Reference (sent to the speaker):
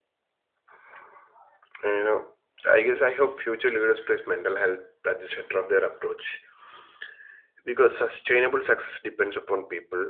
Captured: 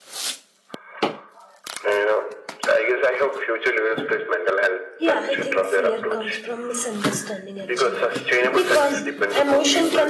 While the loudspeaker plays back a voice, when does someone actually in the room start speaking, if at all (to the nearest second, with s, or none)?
5 s